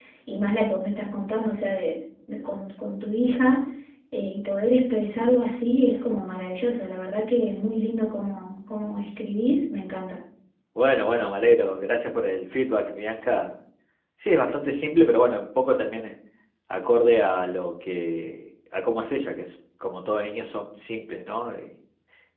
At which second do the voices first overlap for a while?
none

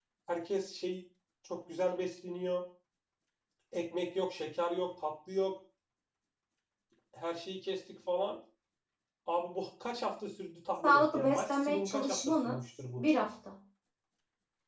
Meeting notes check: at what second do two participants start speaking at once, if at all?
10.8 s

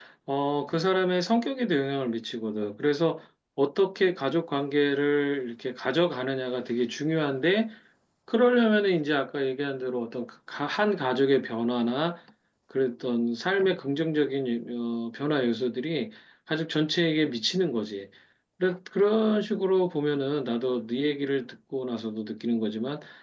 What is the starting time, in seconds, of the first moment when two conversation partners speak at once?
none

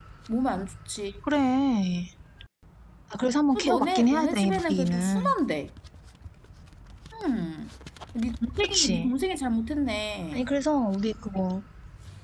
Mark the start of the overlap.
3.5 s

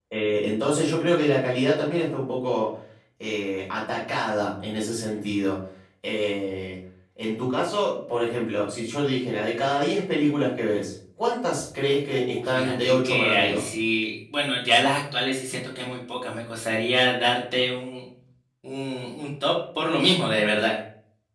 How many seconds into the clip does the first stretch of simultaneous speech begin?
12.1 s

